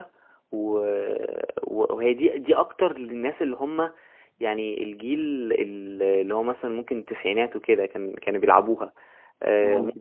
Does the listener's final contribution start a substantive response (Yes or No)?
No